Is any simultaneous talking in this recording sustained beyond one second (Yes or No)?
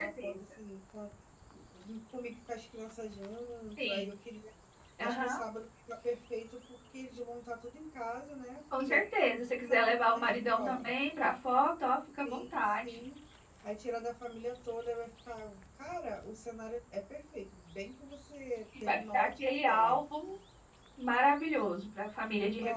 Yes